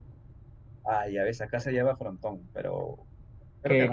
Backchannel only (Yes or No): No